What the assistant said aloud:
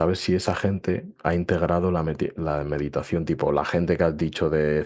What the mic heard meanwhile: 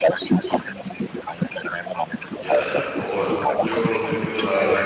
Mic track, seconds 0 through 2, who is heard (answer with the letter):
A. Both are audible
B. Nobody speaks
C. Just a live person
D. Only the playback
D